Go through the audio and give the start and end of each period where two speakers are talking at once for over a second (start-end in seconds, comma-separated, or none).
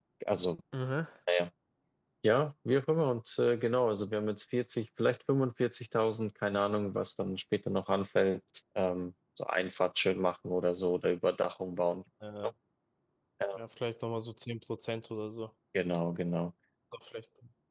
none